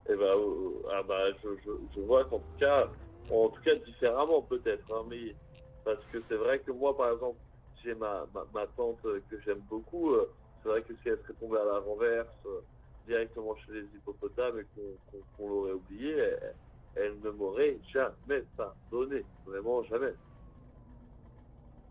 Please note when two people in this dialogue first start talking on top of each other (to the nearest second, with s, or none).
none